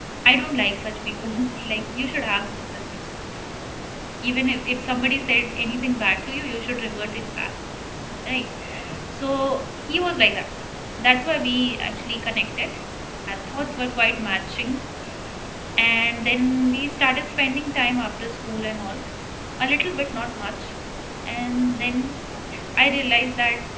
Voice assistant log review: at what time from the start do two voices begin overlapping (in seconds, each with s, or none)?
none